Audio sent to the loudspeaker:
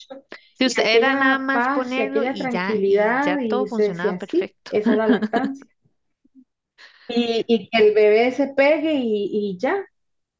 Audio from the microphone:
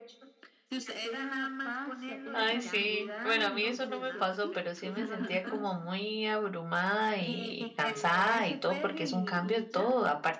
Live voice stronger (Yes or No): Yes